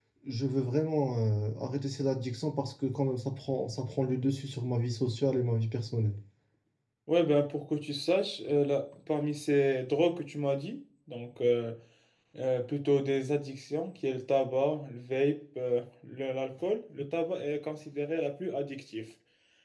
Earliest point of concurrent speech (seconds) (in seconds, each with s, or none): none